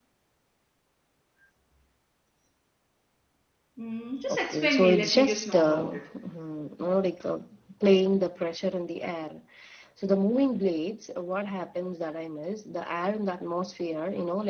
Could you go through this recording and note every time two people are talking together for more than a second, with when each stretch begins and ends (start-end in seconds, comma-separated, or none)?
4.3-6.0